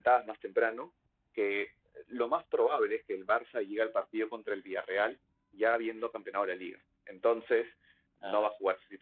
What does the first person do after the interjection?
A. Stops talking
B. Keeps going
B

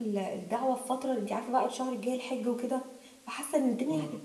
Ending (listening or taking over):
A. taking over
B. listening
B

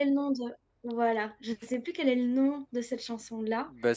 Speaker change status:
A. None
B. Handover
B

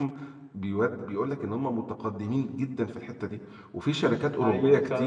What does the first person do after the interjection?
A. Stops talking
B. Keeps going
B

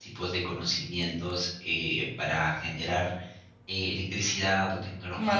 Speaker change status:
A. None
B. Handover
A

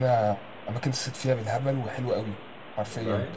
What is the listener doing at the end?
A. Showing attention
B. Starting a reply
A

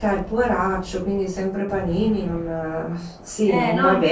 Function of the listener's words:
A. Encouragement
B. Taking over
B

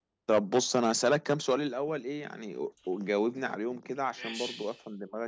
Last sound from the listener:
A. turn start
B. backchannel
B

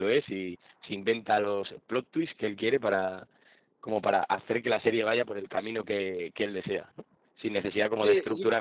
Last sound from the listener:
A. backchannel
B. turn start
A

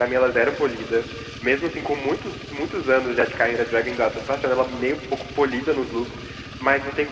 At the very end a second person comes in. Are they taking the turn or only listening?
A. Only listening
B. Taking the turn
A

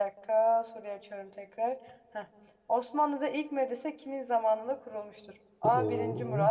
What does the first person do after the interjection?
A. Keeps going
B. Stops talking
A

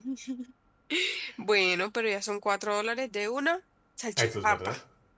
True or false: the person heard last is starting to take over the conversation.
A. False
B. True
B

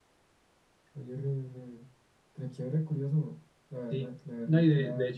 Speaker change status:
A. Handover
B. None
A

